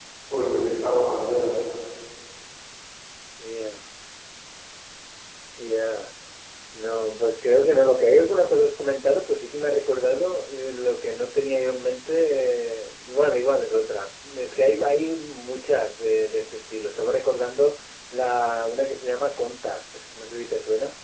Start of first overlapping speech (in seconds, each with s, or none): none